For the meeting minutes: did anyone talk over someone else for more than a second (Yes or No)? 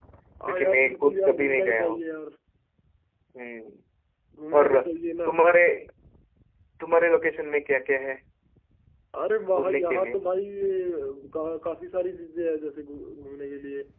Yes